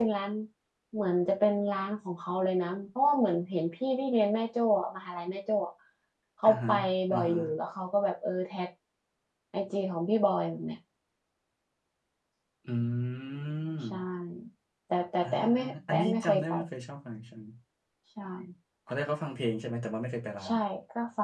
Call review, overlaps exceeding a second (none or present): present